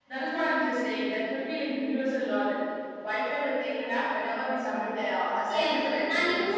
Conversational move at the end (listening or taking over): taking over